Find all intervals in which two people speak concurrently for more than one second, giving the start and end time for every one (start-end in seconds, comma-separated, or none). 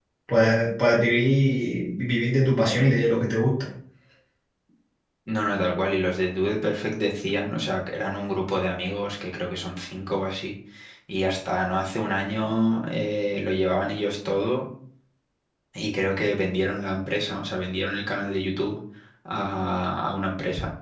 none